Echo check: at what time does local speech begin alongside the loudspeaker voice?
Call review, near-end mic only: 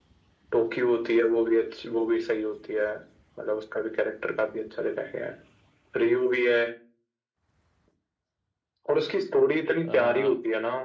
9.9 s

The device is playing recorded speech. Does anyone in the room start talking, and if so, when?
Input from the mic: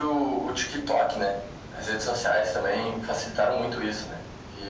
none

